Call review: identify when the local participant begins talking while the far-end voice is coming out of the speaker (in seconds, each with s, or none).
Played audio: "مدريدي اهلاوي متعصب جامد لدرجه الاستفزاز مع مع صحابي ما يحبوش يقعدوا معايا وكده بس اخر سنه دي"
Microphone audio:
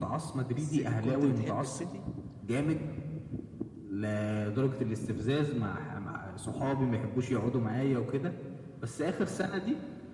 0.5 s